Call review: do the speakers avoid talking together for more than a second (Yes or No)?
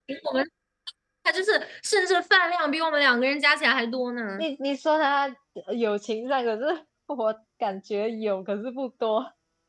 Yes